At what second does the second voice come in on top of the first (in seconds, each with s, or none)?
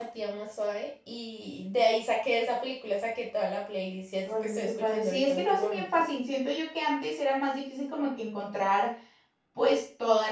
4.2 s